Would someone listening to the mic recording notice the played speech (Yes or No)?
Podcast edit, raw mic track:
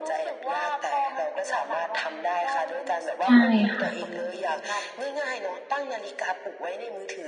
Yes